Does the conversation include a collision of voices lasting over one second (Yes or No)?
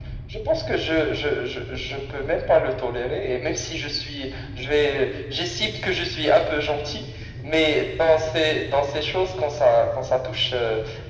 No